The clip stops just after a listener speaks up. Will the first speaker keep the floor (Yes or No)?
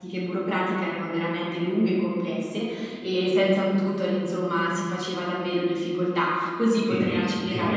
No